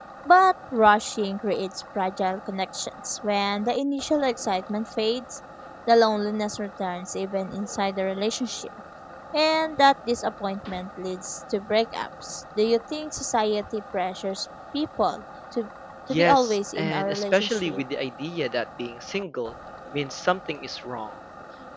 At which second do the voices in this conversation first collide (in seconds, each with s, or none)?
16.1 s